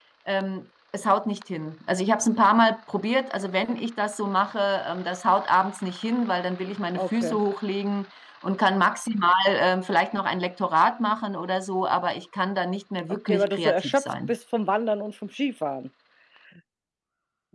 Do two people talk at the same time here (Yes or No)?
Yes